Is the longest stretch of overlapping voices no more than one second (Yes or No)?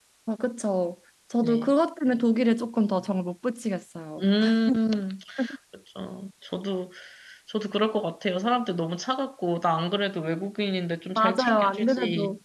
No